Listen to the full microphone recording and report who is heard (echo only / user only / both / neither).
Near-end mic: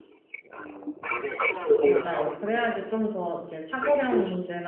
both